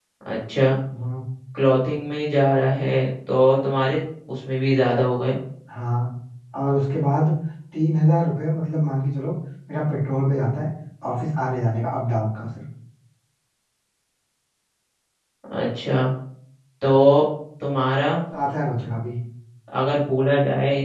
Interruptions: none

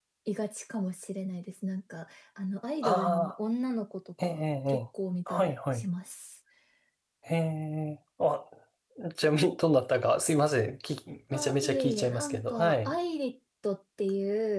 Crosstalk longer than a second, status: present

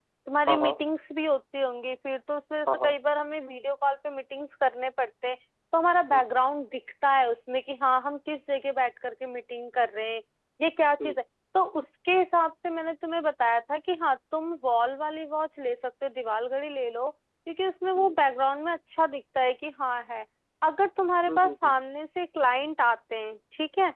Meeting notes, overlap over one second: none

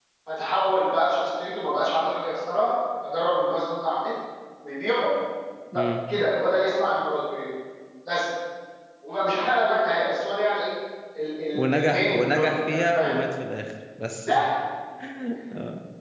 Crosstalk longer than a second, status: present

